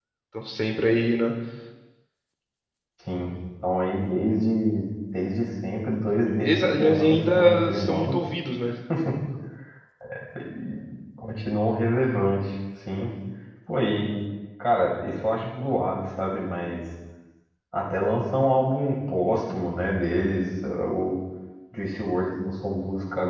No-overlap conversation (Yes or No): No